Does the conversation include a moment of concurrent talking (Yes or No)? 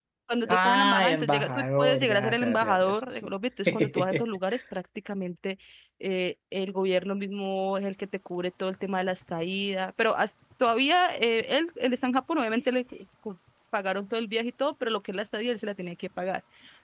Yes